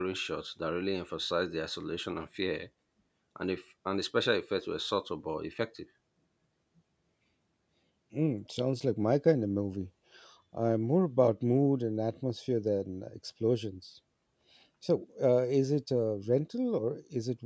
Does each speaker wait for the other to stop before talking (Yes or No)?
Yes